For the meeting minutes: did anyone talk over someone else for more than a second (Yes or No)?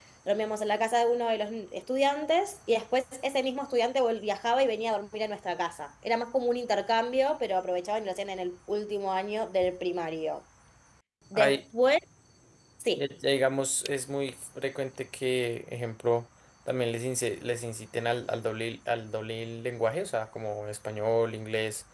No